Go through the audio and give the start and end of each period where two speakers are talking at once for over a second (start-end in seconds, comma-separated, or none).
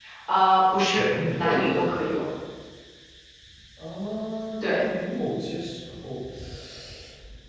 0.9-2.2